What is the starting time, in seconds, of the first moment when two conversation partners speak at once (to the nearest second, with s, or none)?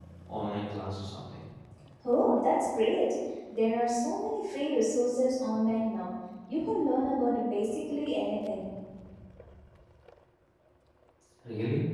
none